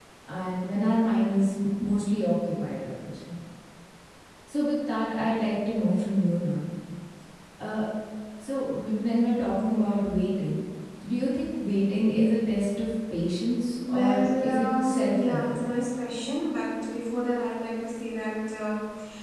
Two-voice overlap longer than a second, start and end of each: 13.9-15.6

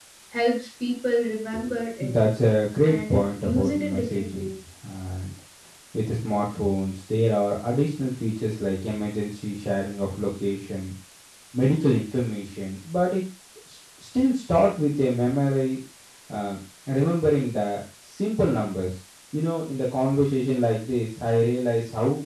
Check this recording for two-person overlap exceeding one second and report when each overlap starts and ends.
2.8-4.5

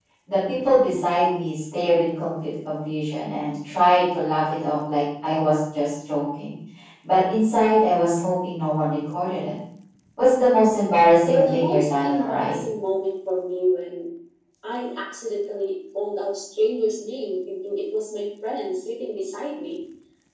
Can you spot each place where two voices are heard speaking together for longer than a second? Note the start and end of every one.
11.2-12.6

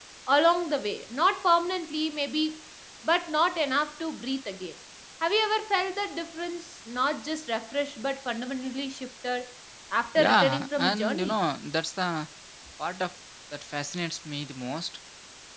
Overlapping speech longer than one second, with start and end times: 10.2-11.4

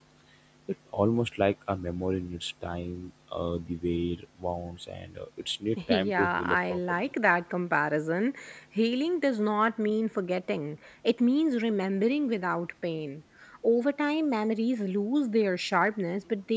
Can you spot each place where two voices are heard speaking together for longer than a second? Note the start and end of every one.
5.9-7.1

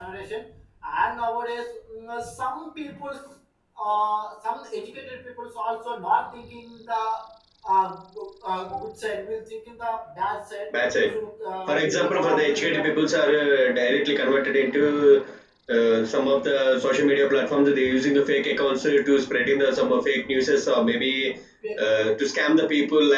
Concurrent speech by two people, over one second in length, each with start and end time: 11.7-12.9

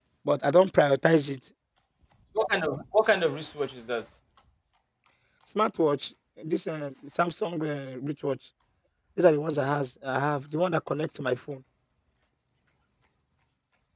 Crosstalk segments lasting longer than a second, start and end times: none

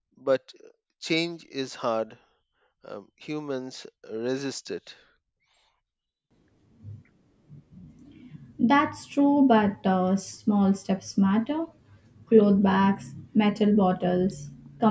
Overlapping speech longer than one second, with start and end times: none

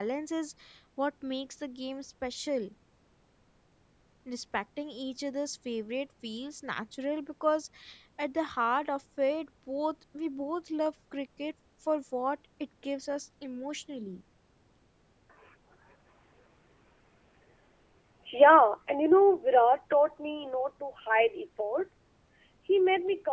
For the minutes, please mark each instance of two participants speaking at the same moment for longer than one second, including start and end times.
none

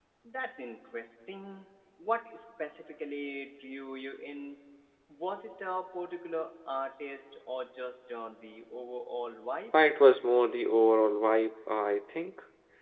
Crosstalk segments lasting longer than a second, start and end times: none

